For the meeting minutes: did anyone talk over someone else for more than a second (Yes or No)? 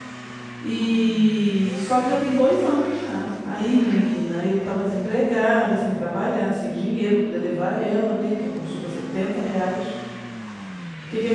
No